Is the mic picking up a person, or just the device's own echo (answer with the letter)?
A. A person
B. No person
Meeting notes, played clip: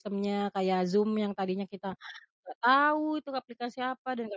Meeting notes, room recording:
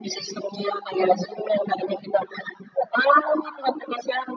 B